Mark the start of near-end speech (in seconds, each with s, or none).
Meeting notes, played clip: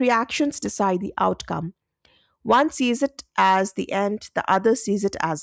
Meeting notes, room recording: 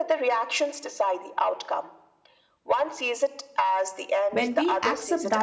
4.3 s